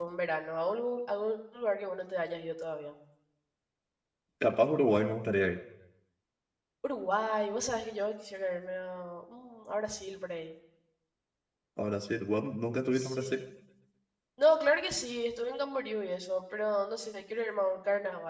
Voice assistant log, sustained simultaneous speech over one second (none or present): none